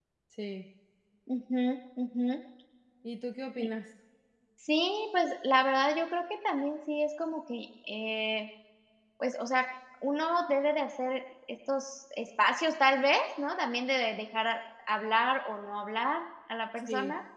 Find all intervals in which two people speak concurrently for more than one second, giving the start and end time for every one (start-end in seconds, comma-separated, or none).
none